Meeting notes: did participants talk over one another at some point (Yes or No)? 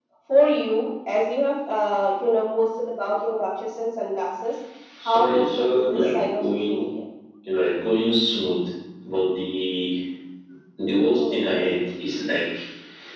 Yes